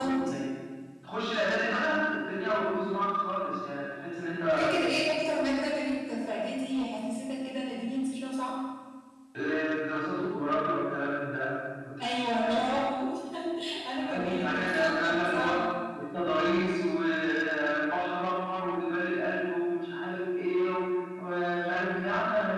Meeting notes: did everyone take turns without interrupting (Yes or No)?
No